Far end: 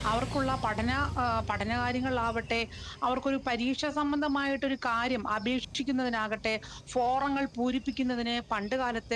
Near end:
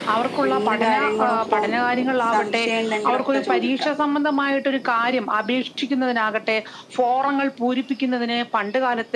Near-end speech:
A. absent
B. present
B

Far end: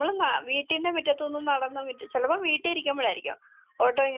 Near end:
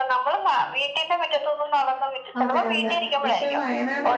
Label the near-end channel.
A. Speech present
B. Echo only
A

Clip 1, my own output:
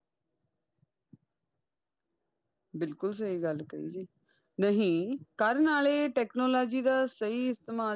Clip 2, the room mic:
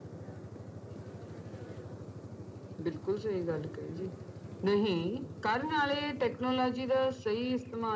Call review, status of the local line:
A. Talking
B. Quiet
B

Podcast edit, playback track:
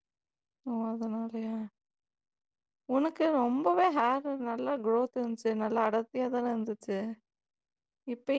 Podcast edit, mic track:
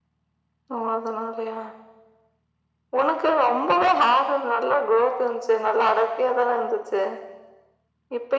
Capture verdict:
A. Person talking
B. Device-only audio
B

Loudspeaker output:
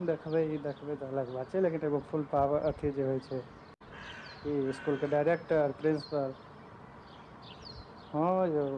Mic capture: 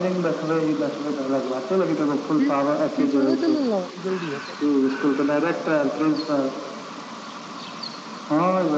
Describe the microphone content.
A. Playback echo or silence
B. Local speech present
B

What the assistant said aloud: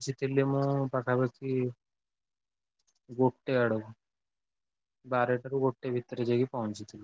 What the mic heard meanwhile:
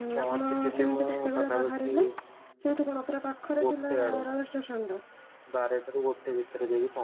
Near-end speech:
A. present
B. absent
A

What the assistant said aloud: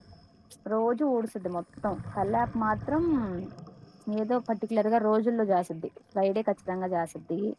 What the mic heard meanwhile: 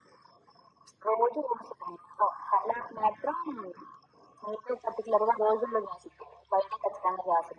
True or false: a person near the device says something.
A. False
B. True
A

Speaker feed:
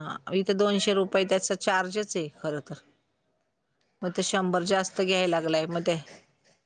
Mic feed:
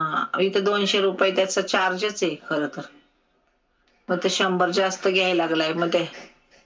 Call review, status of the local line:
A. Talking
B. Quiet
B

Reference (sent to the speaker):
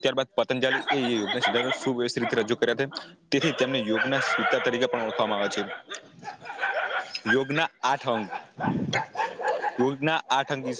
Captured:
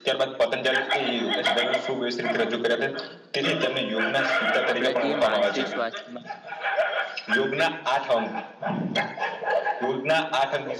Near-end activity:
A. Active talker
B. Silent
A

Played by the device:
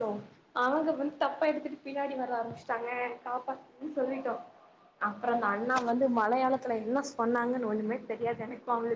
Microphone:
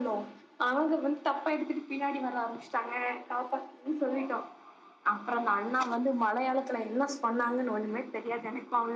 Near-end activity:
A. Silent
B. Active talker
A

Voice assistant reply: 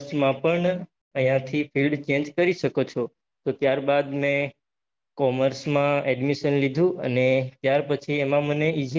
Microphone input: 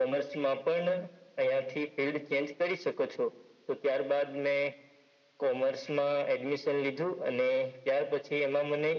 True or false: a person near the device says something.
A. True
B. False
B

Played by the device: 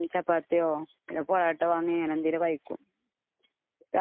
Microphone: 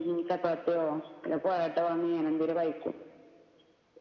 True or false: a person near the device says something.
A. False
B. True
A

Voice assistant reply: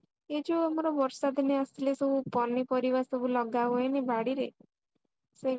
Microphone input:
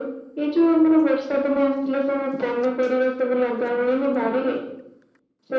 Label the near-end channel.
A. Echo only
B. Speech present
A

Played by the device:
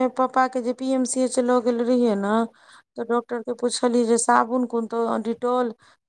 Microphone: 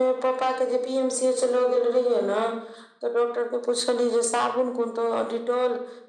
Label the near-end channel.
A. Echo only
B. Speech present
A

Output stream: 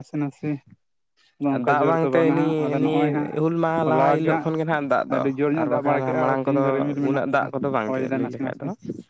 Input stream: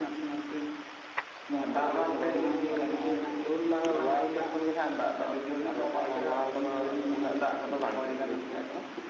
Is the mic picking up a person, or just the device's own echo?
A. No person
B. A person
A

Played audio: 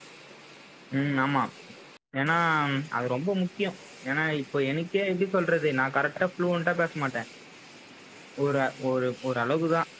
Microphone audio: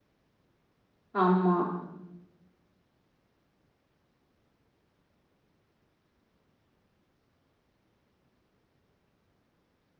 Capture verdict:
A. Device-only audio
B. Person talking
B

